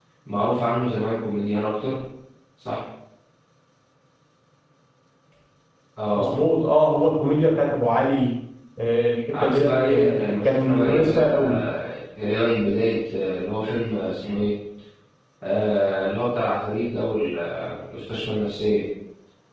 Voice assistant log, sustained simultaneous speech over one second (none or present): present